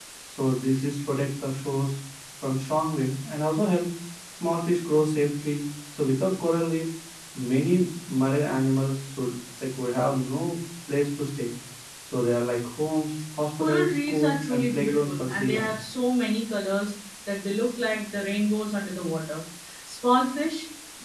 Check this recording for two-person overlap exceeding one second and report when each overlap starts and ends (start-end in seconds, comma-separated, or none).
13.6-15.7